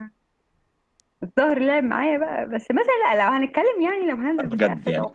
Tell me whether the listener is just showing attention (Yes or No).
No